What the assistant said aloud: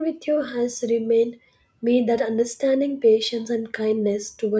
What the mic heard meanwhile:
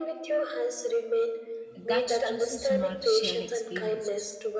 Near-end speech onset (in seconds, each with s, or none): 1.8 s